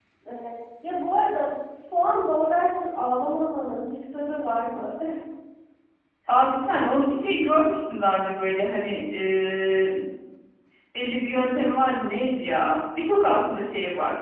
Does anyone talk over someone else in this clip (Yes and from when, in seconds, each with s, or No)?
No